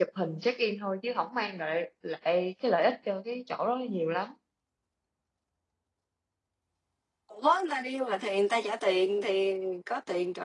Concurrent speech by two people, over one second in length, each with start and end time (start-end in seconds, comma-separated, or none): none